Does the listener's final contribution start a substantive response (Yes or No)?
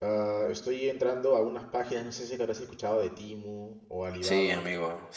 Yes